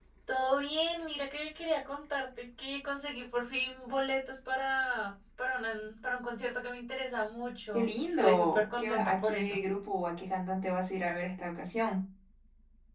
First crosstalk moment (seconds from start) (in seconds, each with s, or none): 7.7 s